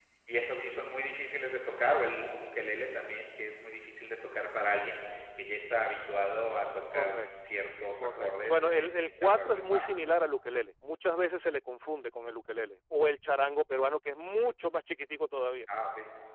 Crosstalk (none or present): present